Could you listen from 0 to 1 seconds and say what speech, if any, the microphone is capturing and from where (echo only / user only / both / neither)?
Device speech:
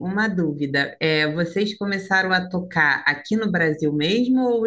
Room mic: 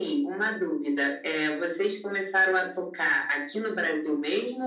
echo only